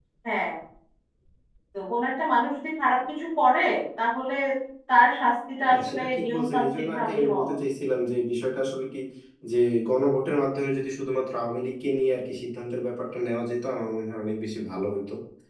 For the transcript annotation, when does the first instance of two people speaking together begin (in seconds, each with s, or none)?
5.7 s